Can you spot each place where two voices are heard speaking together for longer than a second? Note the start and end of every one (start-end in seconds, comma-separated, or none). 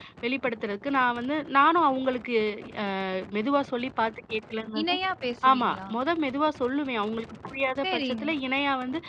none